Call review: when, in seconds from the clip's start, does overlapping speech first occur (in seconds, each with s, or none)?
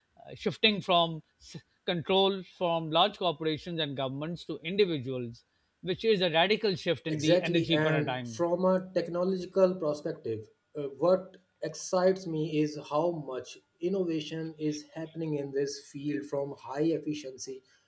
7.1 s